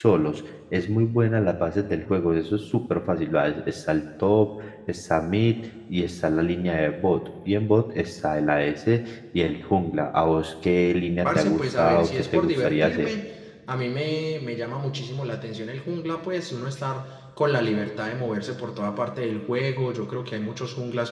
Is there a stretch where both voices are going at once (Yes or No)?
Yes